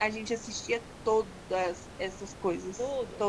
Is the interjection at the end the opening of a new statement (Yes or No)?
Yes